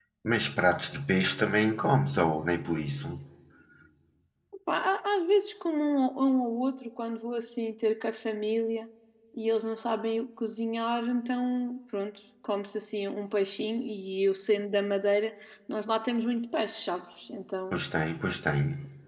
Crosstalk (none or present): none